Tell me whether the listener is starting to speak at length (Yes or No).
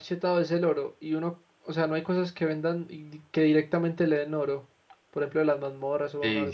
Yes